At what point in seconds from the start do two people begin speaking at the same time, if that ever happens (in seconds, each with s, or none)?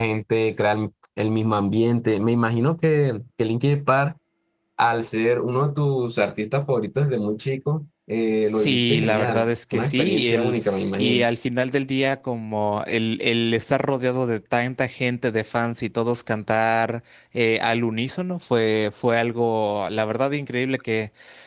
8.5 s